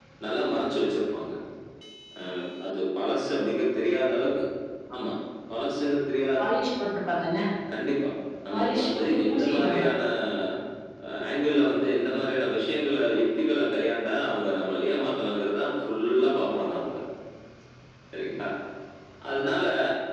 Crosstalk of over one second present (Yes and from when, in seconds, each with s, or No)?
Yes, from 8.5 s